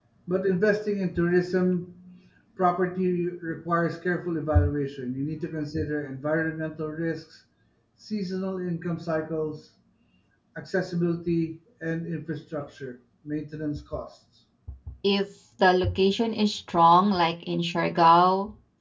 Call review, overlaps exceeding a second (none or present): none